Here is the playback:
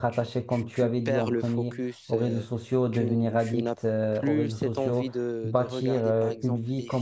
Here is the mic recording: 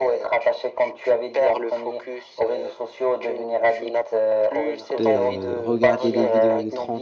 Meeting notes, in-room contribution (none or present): present